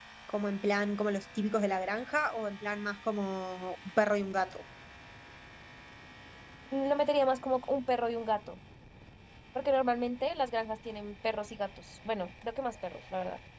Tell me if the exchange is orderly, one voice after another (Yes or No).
Yes